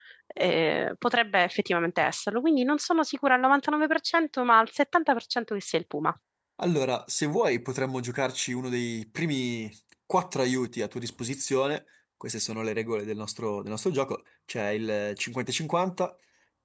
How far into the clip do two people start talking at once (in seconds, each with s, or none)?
none